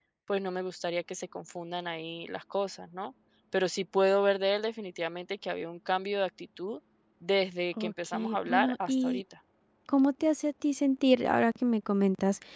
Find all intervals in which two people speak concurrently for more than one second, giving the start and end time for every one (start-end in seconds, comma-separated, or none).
7.8-9.2